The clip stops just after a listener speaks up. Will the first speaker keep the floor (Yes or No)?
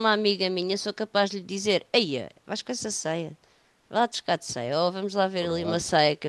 Yes